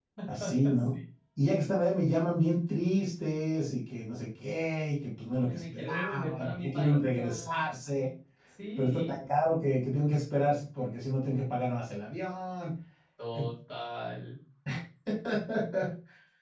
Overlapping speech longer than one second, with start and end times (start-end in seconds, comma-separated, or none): 5.3-7.6